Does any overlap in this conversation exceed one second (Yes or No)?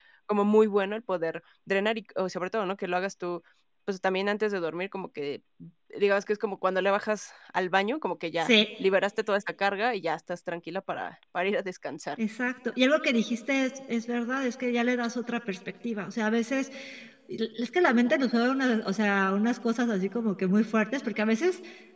No